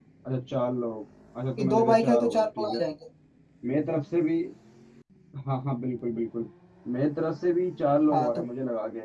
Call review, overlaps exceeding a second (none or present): present